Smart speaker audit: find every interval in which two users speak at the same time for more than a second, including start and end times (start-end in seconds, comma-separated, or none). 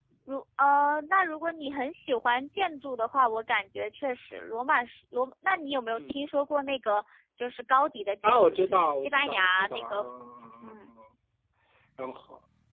8.2-10.1